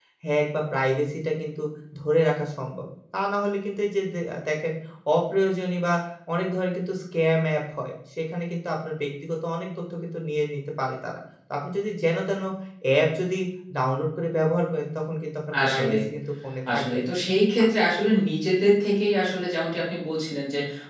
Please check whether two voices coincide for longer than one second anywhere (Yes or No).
No